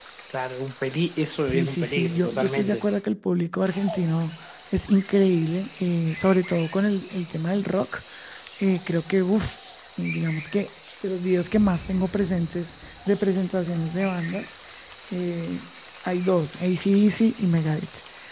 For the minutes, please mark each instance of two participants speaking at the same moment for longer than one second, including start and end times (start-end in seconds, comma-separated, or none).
1.4-2.8